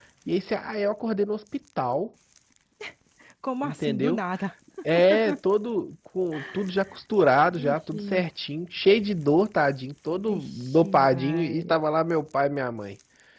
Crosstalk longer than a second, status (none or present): present